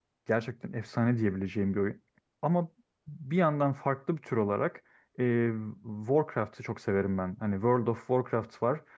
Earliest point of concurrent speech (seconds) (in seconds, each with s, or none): none